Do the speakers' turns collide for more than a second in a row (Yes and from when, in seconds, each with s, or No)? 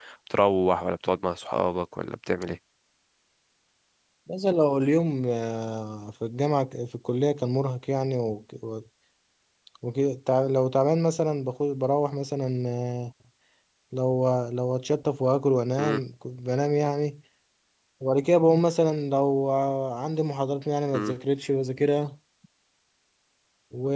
No